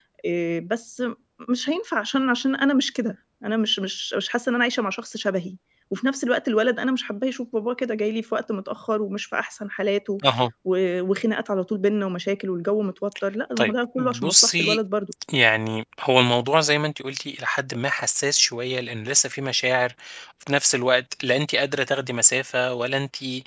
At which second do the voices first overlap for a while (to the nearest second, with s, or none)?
14 s